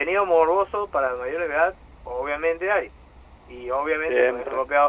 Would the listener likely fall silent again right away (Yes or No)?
Yes